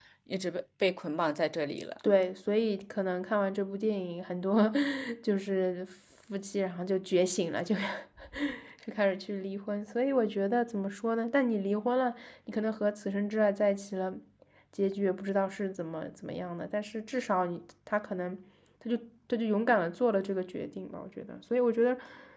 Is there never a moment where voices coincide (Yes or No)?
Yes